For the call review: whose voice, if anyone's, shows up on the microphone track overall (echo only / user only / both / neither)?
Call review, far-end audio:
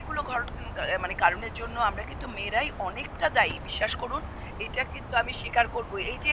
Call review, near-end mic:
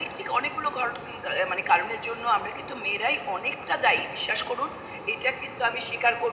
echo only